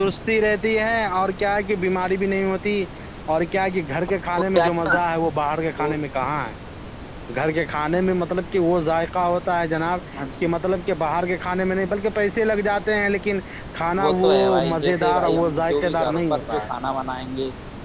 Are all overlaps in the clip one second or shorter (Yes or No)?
No